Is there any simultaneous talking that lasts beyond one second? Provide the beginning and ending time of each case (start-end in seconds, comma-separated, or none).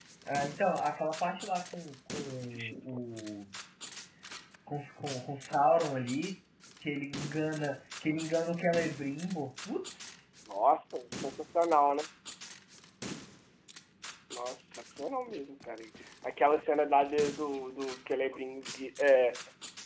none